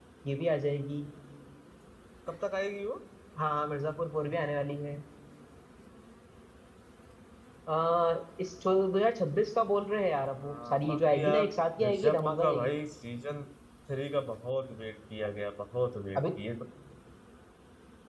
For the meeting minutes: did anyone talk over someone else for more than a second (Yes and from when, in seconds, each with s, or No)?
Yes, from 10.2 s